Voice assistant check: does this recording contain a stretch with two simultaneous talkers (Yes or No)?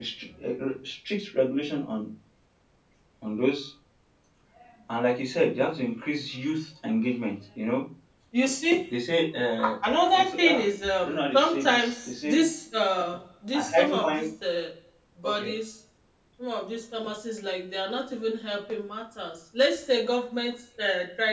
Yes